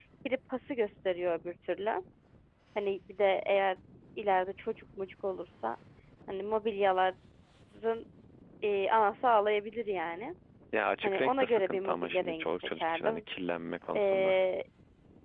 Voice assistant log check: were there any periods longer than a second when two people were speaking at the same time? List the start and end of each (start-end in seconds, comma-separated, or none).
11.0-13.2